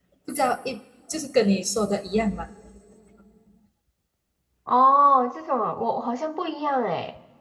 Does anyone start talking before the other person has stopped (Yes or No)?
No